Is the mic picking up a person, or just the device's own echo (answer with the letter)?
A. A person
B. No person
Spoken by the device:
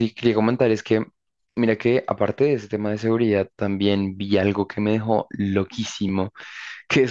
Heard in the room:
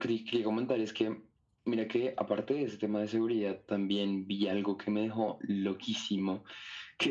B